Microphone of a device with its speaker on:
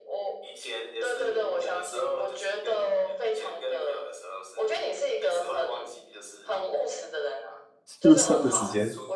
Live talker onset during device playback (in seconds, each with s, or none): 8.0 s